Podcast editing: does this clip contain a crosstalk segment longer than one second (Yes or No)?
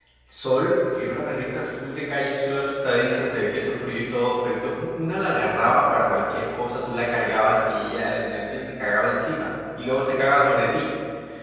No